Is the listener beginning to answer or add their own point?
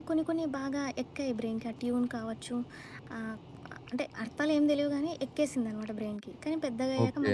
No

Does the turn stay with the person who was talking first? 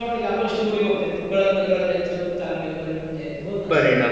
No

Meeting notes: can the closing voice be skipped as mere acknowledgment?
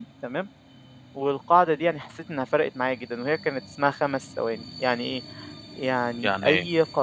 Yes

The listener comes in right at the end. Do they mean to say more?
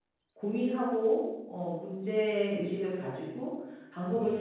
No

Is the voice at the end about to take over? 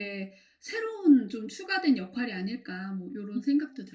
Yes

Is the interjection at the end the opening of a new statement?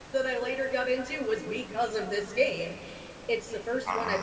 No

